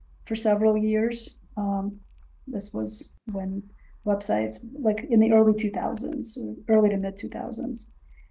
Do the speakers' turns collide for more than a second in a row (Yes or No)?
No